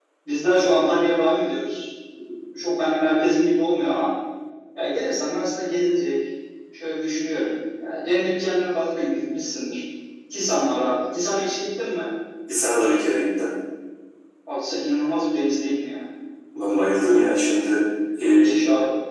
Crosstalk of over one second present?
No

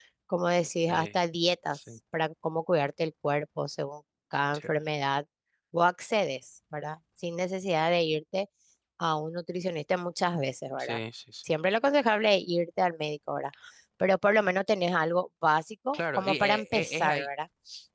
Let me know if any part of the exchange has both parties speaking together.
Yes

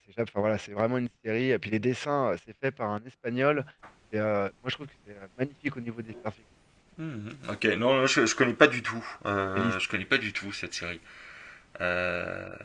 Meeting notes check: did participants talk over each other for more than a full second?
No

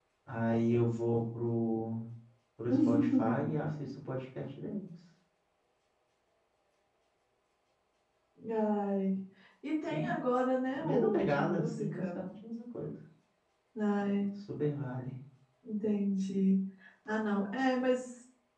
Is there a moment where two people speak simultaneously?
Yes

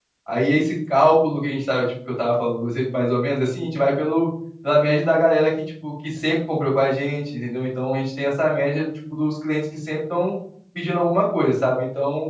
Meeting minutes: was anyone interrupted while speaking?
No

